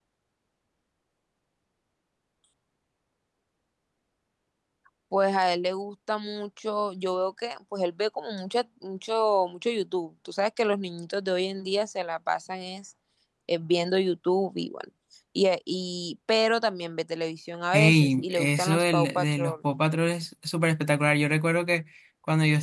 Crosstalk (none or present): present